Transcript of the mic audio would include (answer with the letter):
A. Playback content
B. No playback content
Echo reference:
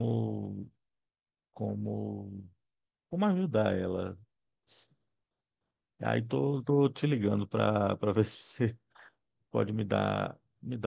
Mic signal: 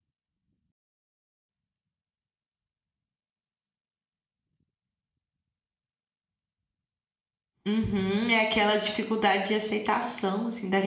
B